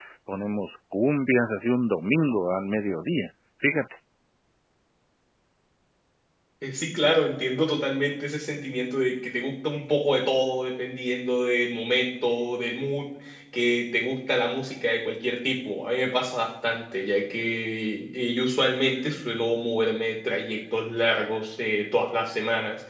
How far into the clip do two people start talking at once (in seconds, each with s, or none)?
none